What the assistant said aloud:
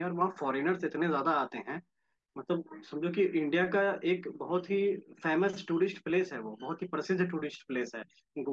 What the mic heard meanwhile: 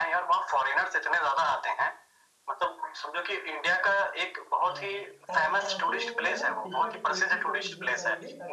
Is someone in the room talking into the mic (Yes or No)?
Yes